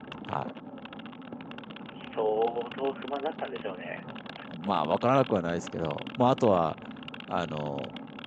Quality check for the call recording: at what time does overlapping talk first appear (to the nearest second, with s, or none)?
none